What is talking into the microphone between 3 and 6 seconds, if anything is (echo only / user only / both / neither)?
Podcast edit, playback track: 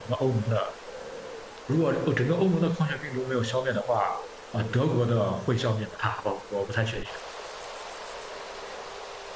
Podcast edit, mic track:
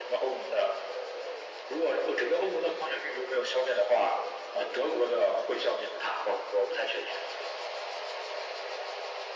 echo only